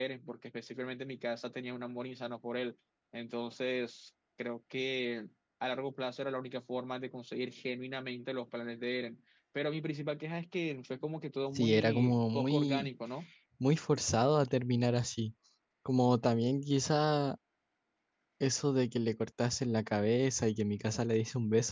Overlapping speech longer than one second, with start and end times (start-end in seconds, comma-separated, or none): 11.6-12.9